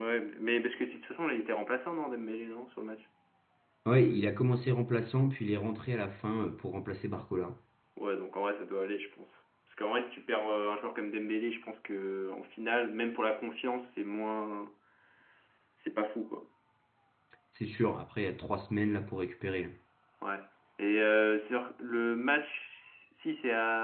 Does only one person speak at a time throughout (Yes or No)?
Yes